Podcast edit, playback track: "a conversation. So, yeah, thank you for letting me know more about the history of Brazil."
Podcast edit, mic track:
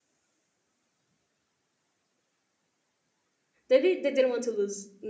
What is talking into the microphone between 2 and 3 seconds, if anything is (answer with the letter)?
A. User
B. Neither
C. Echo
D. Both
B